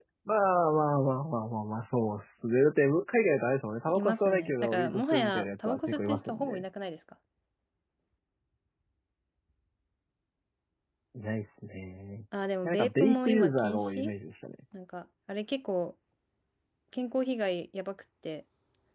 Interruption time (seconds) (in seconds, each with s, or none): 3.9 s